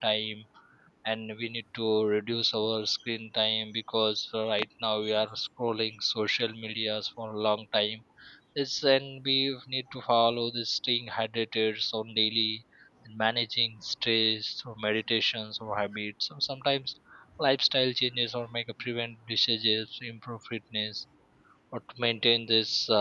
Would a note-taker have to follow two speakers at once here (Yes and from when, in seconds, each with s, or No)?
No